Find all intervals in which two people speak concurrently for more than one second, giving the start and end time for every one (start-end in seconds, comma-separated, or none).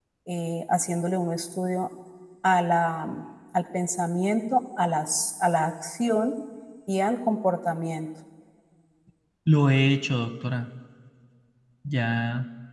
none